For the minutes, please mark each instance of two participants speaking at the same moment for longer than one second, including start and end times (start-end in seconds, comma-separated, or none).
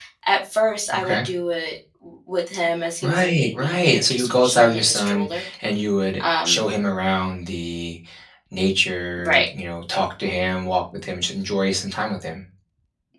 3.0-5.4